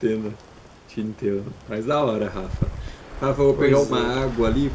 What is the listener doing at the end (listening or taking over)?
listening